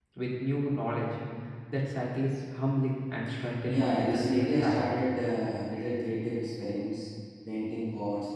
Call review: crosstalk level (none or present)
present